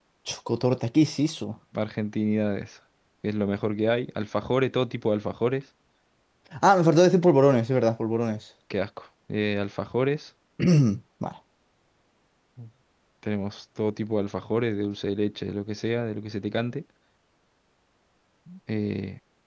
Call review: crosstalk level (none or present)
none